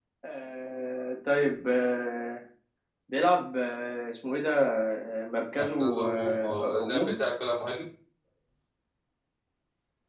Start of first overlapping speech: 5.6 s

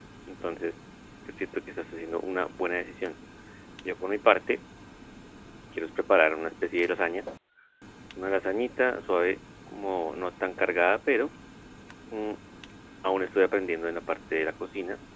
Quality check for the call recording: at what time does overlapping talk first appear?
none

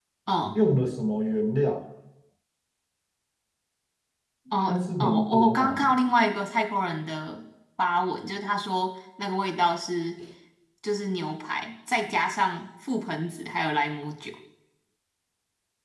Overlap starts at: 4.7 s

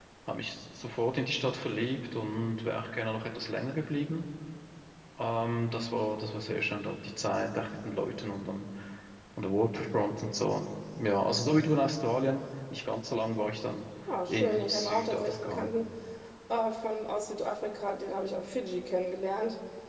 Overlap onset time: 14.3 s

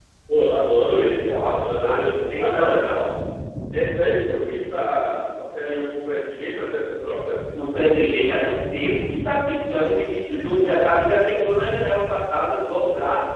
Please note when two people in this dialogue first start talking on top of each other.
1.2 s

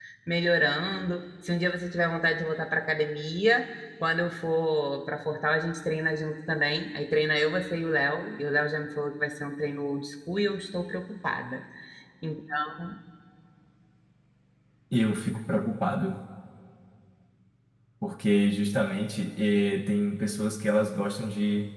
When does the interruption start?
none

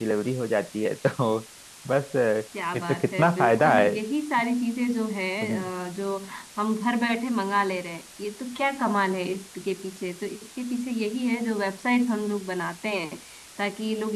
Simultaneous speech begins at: 2.7 s

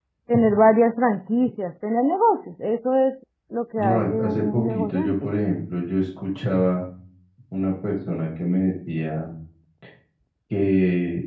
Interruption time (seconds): 3.8 s

